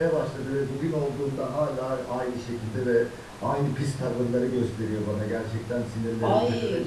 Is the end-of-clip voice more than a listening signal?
Yes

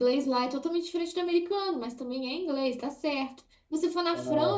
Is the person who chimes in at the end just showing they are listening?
Yes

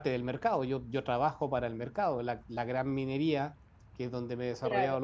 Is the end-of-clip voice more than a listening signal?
No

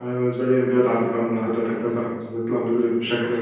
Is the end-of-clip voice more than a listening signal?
No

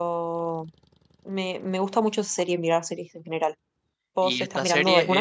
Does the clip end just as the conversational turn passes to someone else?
Yes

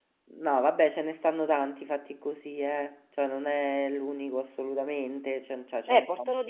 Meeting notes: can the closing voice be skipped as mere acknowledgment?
No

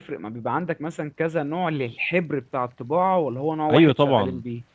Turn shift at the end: Yes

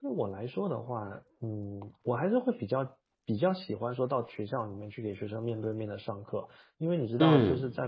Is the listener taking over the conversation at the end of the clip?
No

